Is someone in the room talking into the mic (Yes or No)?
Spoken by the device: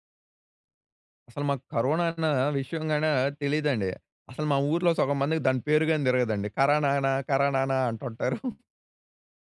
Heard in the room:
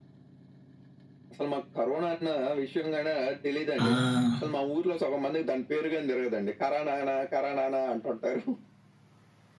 Yes